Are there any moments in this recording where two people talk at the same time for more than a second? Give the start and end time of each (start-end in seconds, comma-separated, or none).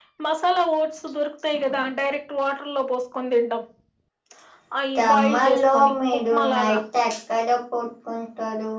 5.0-6.8